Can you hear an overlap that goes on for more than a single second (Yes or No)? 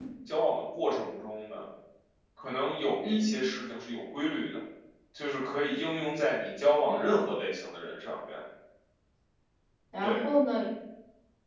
No